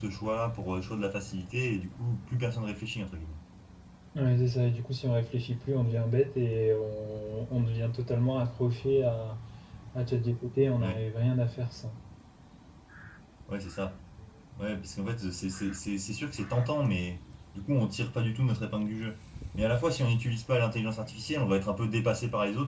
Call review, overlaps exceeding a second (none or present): none